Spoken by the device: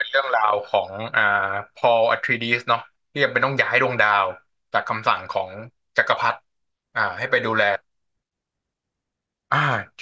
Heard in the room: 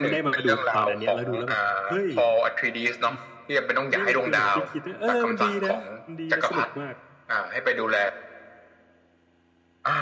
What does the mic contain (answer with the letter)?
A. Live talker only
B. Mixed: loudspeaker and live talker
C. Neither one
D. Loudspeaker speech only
B